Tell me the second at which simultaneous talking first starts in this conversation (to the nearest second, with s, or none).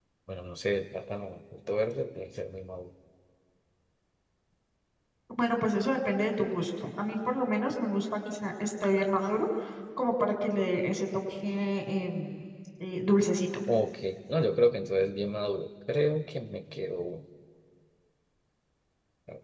none